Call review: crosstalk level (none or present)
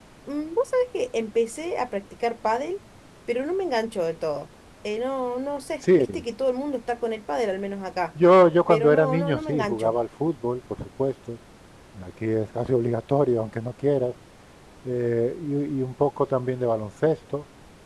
present